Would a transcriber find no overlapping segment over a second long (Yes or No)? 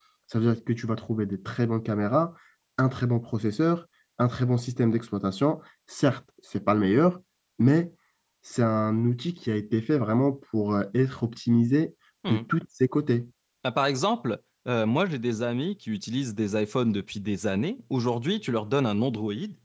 Yes